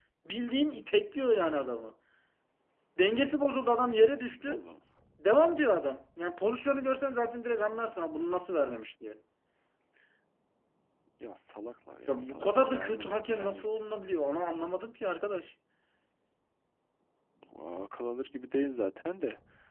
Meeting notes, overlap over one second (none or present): present